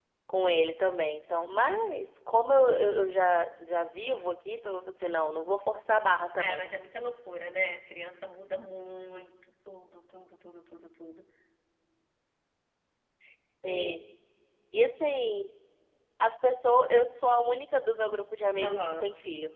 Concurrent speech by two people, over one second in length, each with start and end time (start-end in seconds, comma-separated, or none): none